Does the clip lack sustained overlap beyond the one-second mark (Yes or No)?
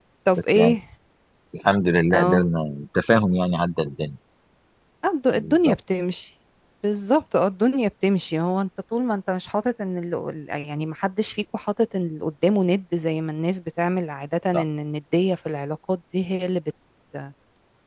Yes